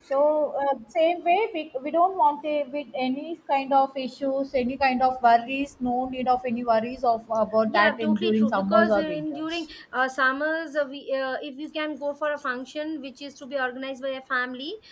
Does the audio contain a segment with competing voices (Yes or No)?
Yes